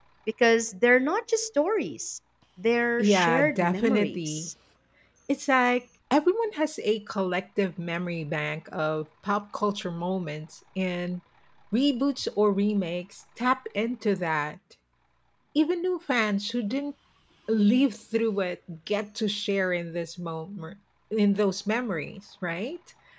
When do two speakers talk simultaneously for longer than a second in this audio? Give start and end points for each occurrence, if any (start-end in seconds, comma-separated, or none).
3.0-4.5